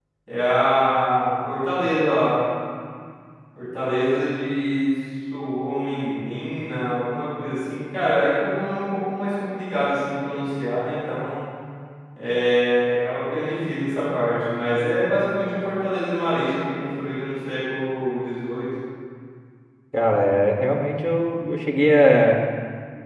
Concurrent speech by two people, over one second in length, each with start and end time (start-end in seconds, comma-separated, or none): none